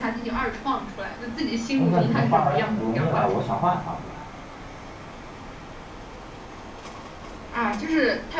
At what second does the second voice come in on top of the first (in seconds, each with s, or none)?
1.8 s